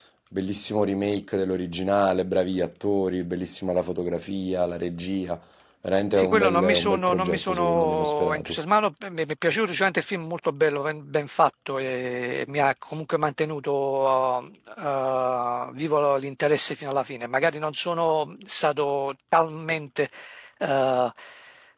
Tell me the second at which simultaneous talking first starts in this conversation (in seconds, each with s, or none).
6.1 s